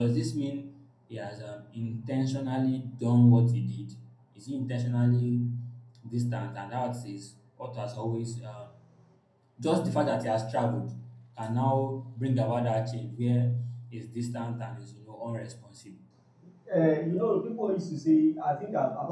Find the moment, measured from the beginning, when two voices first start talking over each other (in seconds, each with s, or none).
none